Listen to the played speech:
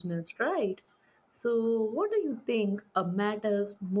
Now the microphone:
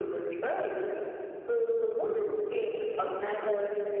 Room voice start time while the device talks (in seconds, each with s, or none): none